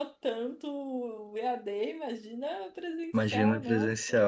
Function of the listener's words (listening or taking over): taking over